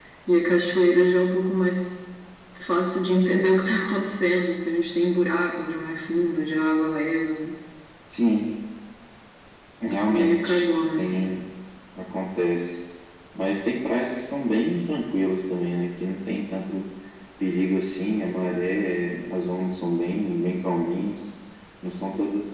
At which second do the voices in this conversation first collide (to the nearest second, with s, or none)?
10 s